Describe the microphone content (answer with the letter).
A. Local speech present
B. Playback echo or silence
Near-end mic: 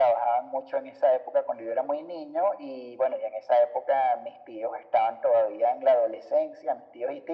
B